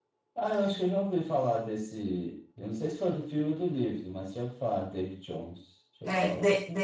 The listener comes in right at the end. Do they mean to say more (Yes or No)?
Yes